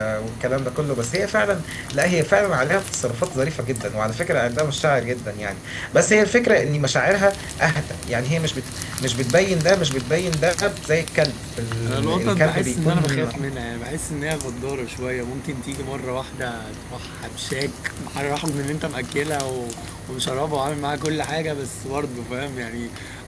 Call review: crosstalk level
present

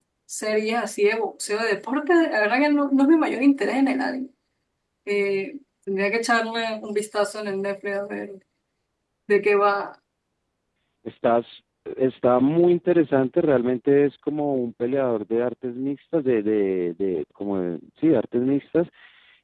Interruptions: none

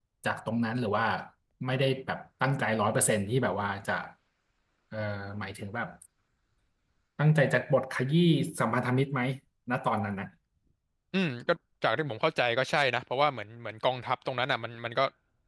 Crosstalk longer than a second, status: none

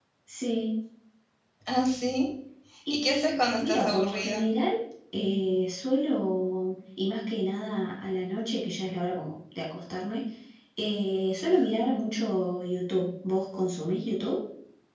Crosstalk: present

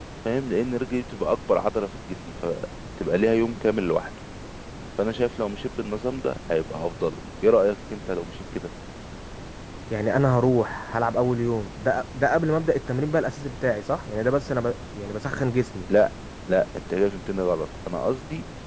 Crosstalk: none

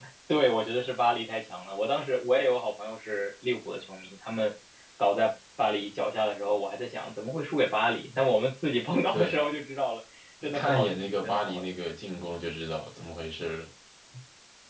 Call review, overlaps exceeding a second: present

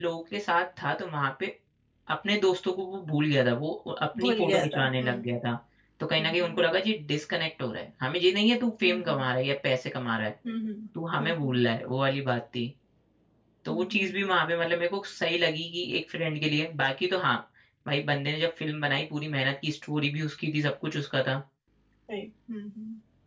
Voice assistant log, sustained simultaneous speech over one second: present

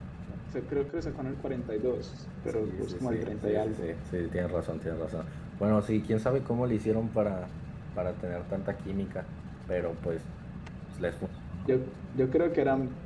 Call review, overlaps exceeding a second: present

